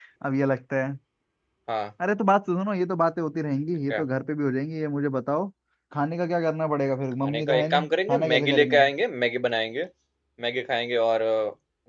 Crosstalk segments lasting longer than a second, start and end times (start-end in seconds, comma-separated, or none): 7.2-8.8